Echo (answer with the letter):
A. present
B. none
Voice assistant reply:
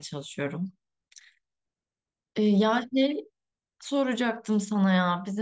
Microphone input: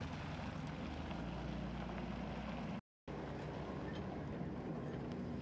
B